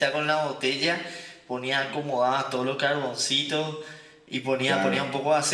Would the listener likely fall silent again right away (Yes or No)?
Yes